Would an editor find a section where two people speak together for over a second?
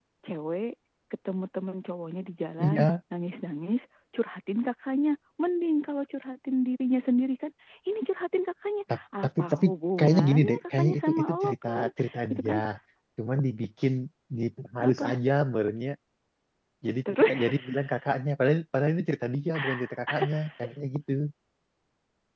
Yes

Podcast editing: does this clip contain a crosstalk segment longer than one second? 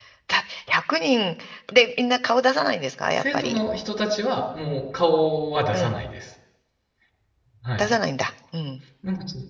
No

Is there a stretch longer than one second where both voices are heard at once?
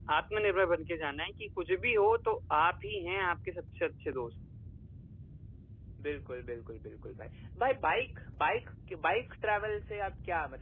No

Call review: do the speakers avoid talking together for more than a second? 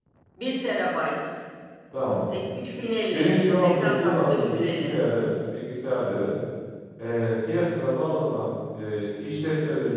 No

